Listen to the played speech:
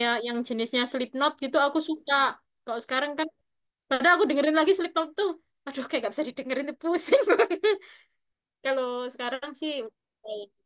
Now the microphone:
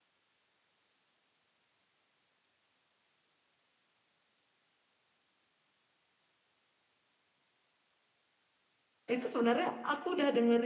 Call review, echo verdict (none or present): none